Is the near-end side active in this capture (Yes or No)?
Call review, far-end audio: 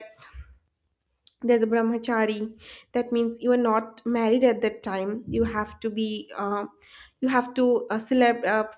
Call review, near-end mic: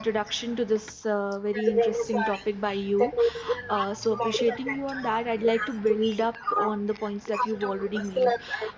Yes